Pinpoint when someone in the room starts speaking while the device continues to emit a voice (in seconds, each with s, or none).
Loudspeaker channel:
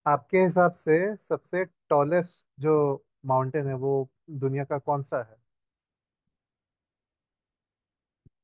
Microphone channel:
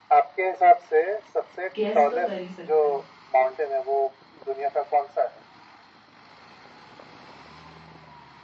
1.8 s